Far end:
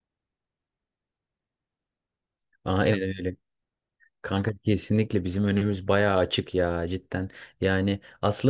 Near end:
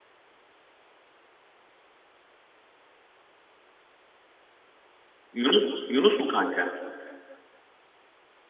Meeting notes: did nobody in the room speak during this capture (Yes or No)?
No